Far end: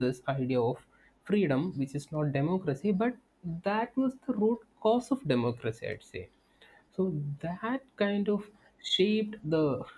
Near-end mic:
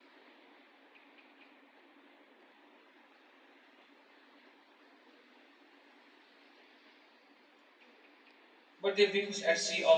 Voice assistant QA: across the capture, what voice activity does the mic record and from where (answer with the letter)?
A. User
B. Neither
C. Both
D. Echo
A